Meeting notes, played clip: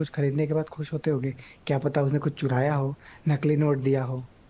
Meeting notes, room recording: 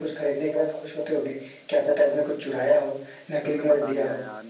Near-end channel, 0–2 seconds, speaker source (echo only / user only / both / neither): echo only